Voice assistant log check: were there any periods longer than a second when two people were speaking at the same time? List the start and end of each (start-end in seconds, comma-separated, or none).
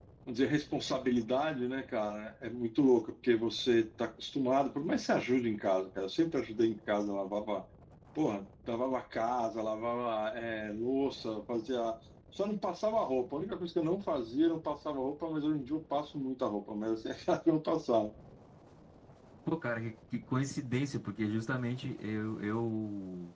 none